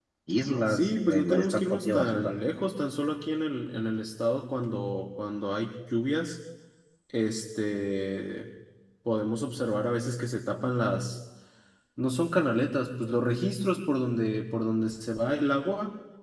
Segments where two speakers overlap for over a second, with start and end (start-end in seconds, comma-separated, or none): 0.7-2.3